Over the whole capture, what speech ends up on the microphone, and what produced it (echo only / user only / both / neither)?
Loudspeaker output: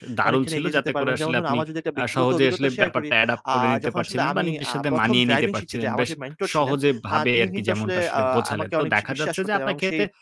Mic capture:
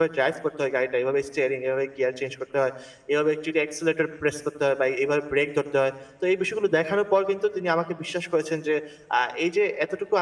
user only